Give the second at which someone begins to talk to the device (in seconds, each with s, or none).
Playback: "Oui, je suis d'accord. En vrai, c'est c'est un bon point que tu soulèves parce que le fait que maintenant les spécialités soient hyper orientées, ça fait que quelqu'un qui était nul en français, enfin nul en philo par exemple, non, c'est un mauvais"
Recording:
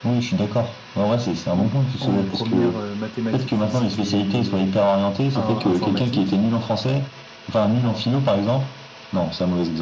1.5 s